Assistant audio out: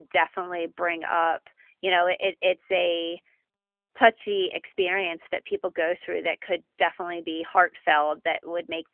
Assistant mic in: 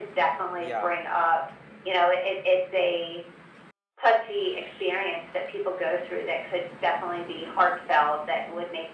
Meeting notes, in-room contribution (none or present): present